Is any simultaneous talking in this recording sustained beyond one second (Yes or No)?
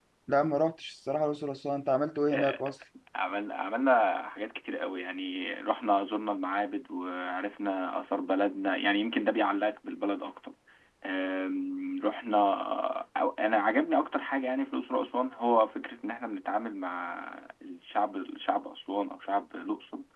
No